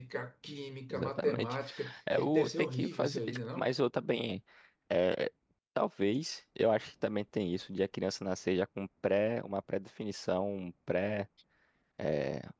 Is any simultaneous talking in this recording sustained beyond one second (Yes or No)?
Yes